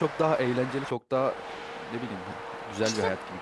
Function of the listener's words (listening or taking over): taking over